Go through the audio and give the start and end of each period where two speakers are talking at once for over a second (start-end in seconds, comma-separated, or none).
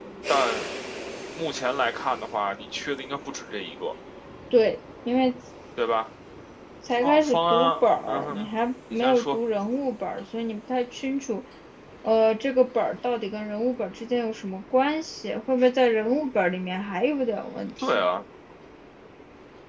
7.0-8.5